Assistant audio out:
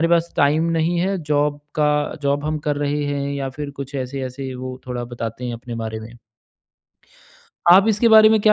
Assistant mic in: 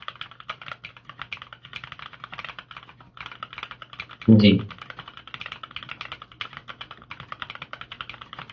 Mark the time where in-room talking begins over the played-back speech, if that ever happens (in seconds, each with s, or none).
4.3 s